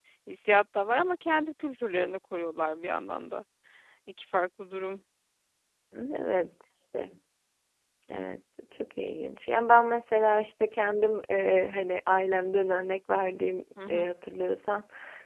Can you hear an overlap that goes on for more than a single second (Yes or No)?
No